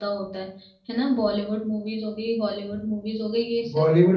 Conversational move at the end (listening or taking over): taking over